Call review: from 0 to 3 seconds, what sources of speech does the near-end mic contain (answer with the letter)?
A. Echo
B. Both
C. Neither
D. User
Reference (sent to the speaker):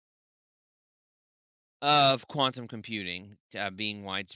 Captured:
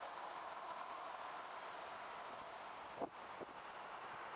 C